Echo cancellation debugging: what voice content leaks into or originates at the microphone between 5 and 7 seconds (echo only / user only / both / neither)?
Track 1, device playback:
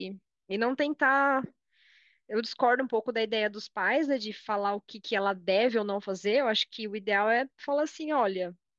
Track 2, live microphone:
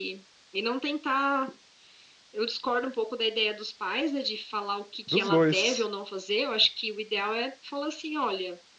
both